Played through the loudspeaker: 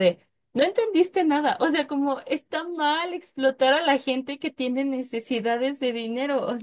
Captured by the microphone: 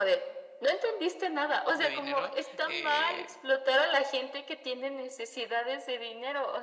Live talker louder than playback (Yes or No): No